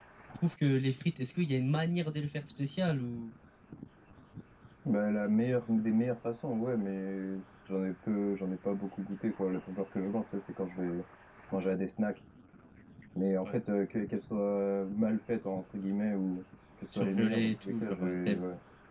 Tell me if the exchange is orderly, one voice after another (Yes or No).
No